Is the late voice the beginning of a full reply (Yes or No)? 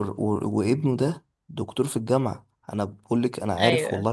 No